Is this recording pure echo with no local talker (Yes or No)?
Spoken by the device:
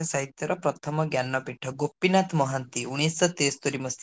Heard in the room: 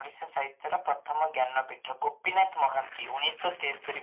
Yes